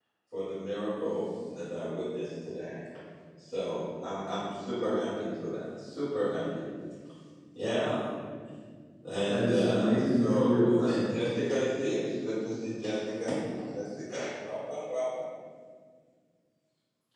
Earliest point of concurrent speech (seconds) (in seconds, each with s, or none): 9.3 s